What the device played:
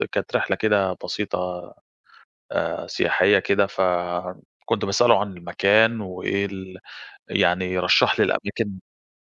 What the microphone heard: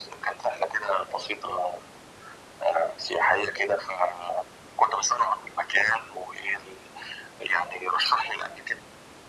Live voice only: none

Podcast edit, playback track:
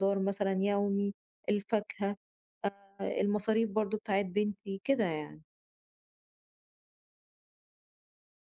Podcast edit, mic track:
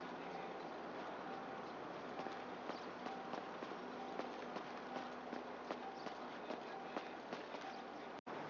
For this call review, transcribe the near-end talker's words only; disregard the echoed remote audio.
none

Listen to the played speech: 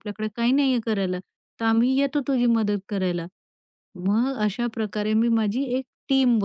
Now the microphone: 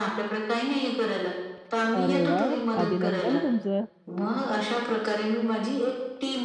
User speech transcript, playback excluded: अरे वाह! अभिनंदन तुमचं.

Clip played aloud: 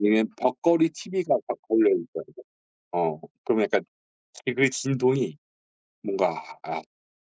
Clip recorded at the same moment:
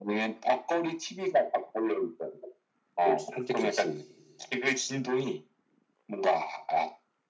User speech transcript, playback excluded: 그 산책 좋지.

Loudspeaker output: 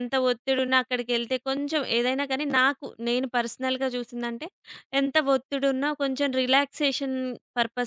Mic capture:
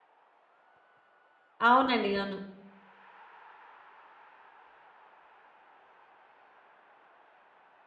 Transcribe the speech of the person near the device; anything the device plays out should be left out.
అవునండి. అవును.

